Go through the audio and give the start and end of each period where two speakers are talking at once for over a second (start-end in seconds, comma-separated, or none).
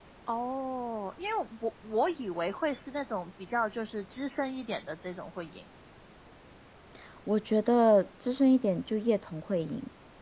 none